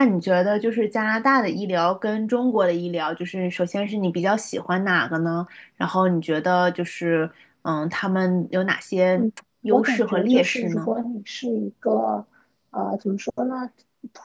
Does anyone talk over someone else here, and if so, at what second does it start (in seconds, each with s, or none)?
9.7 s